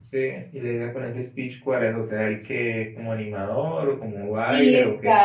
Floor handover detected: Yes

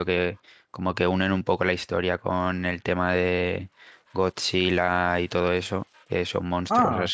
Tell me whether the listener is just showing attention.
Yes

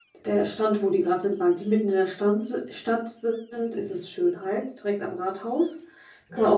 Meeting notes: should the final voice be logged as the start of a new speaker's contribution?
Yes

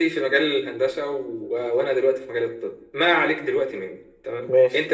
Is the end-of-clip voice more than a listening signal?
No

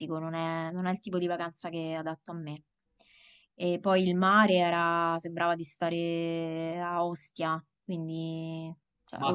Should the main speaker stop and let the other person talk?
No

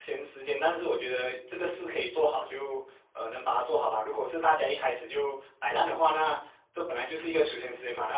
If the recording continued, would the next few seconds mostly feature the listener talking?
No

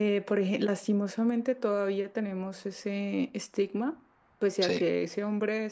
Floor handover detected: No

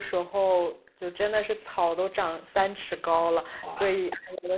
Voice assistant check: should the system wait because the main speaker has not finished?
Yes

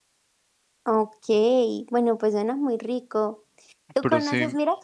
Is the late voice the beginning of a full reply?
No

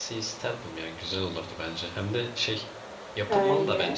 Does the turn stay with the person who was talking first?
Yes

